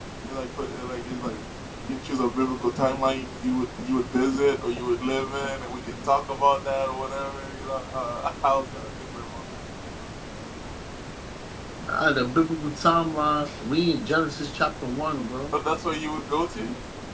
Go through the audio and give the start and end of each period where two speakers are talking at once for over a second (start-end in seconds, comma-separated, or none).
none